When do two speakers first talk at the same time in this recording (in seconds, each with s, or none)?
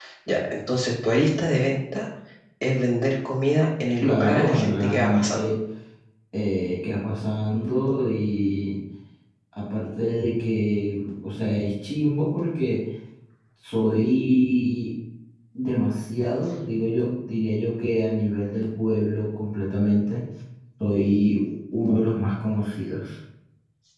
4.0 s